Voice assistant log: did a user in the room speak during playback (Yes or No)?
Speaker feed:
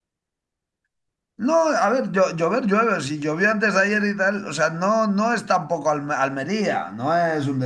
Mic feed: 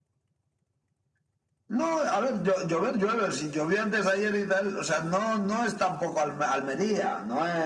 No